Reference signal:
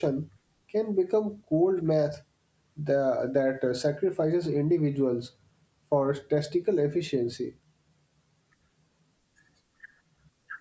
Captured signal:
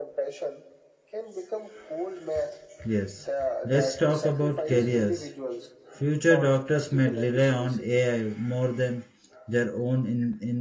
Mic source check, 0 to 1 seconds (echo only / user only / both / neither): echo only